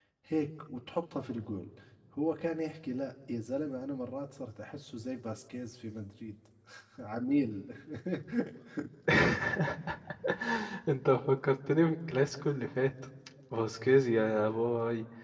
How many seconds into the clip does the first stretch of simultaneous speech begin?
none

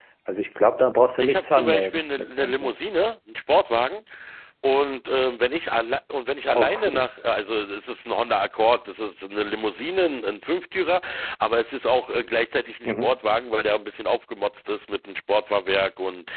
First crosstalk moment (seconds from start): 1 s

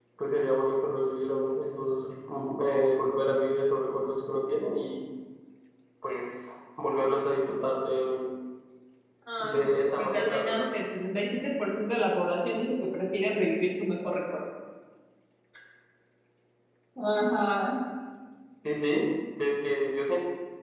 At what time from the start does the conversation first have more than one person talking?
9 s

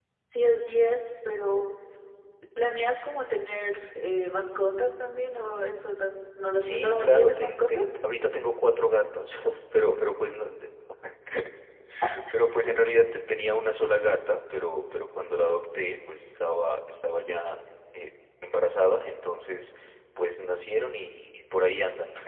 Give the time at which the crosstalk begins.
7 s

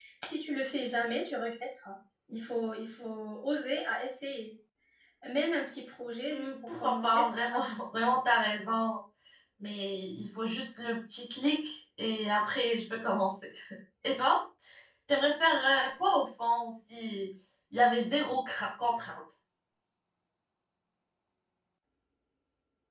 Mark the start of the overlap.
6 s

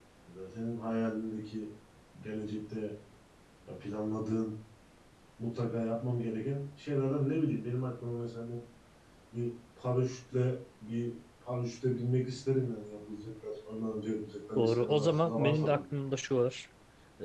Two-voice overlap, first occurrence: 15 s

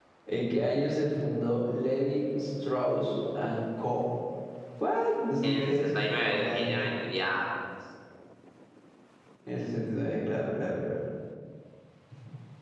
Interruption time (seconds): 5 s

